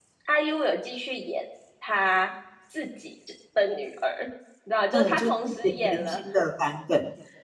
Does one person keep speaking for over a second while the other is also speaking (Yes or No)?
Yes